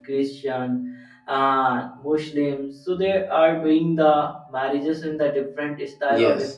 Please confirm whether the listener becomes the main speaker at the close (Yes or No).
Yes